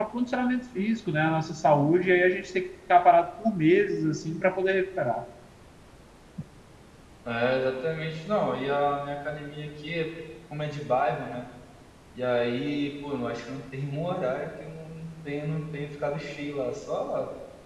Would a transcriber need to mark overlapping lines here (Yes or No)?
No